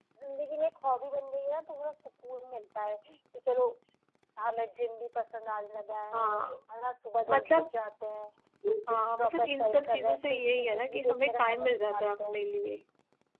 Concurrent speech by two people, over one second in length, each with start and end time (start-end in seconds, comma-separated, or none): 8.9-12.4